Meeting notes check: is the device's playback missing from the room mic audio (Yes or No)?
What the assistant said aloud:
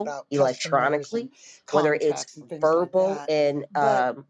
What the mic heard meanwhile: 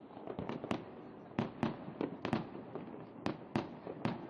Yes